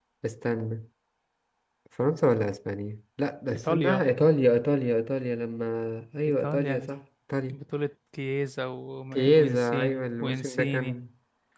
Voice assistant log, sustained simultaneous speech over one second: present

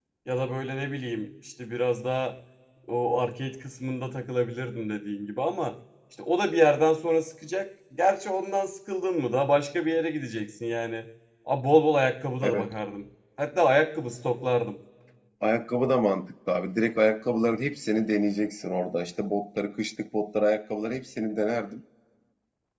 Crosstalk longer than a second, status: none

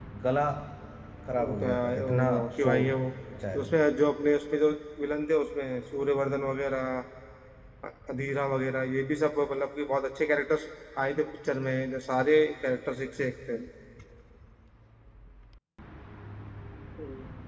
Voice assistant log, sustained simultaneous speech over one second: present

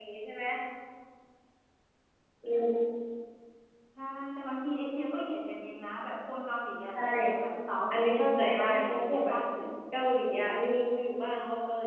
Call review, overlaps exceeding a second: present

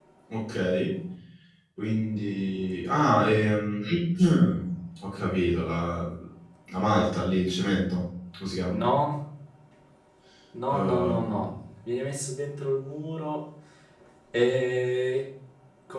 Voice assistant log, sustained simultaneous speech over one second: none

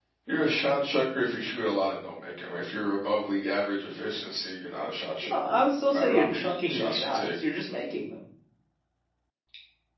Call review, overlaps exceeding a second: present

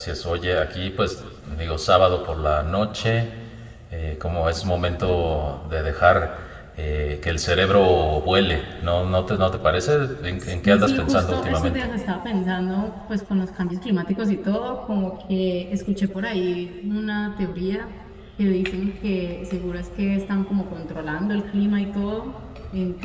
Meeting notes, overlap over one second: present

